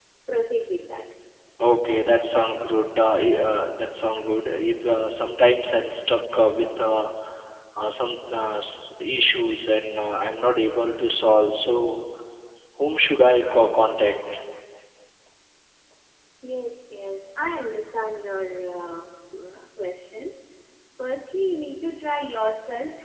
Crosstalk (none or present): none